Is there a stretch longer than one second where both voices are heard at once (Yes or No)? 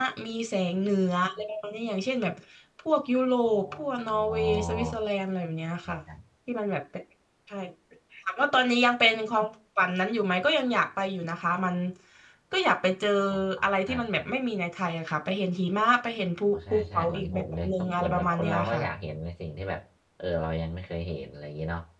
Yes